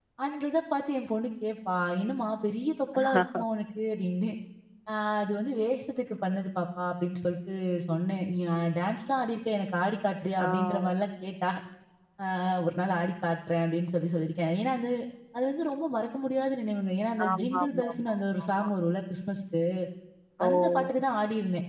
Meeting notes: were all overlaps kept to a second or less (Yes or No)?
No